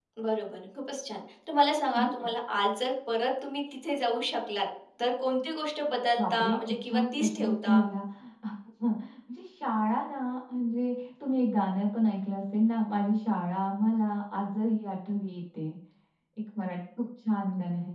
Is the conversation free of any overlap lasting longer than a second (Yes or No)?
No